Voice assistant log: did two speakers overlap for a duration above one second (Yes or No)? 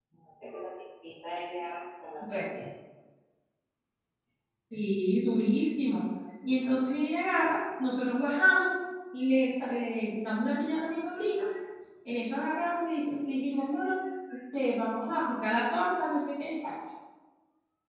No